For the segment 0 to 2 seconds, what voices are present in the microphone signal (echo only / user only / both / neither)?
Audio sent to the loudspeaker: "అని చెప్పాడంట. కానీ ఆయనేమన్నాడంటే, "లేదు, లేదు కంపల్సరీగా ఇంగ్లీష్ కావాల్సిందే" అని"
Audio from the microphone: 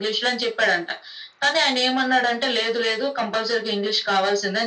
echo only